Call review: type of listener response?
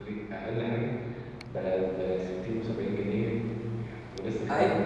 taking over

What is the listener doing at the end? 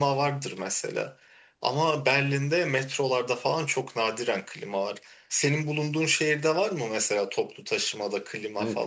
taking over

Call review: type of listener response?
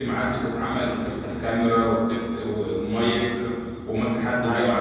listening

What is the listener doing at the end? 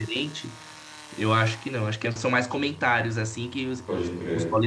listening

